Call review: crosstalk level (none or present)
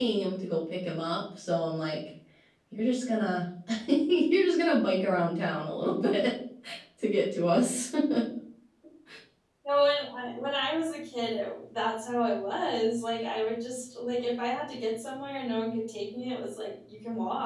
none